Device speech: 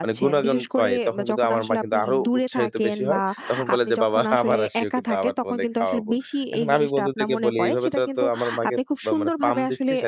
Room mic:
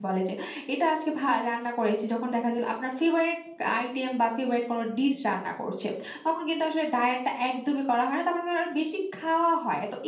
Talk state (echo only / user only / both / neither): user only